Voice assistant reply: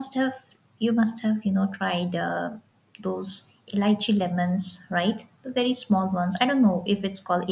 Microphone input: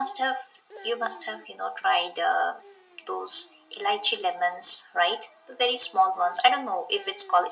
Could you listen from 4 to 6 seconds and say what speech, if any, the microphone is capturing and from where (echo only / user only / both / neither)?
echo only